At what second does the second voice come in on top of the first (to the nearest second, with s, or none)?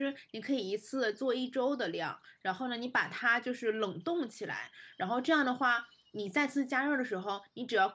none